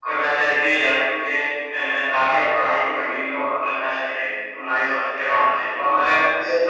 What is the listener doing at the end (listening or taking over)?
listening